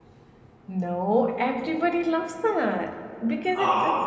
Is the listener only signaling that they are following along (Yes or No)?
Yes